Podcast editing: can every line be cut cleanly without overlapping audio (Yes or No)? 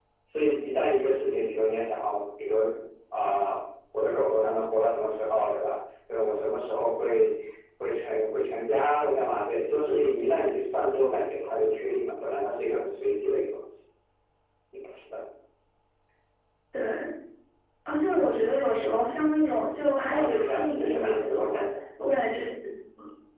No